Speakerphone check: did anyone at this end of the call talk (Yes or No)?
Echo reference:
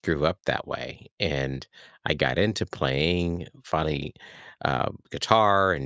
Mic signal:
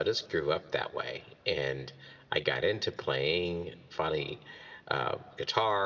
No